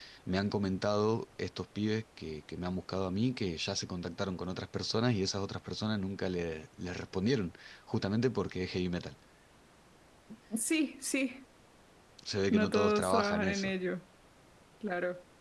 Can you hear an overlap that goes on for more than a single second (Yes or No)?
Yes